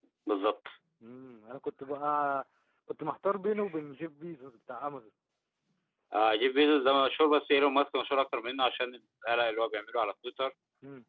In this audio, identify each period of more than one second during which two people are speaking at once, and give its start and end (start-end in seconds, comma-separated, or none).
none